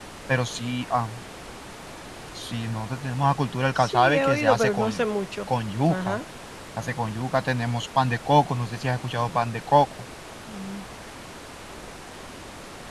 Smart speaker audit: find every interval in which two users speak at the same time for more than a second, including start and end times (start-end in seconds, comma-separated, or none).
3.8-5.0